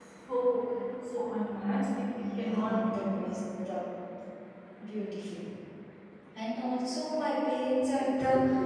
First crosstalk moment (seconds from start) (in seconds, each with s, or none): 2.1 s